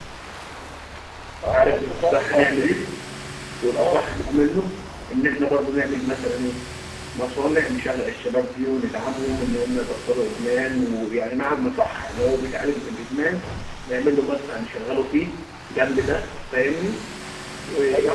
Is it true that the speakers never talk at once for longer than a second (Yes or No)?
No